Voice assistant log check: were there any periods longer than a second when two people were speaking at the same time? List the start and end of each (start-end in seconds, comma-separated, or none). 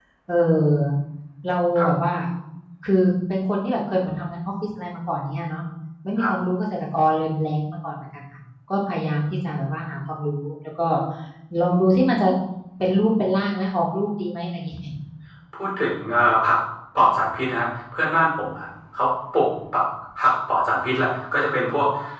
none